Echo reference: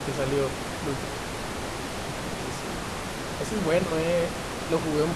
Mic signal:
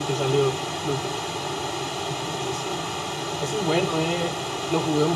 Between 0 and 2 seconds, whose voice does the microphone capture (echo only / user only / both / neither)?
echo only